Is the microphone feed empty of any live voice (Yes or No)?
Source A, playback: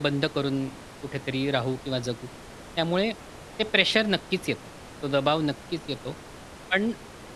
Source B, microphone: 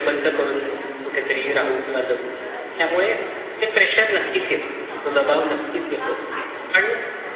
No